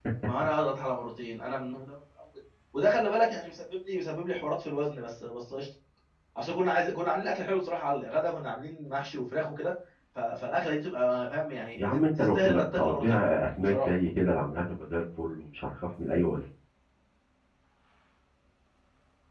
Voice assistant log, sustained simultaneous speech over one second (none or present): present